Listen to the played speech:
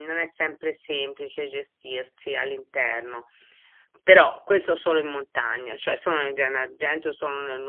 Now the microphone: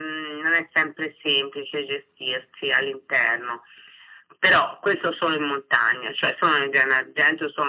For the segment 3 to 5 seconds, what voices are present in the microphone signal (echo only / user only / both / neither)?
echo only